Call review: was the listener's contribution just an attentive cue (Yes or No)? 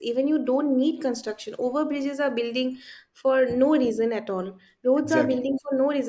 Yes